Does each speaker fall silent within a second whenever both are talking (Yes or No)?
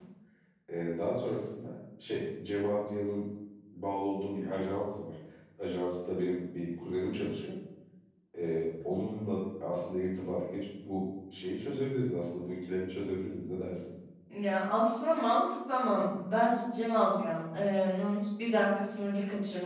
Yes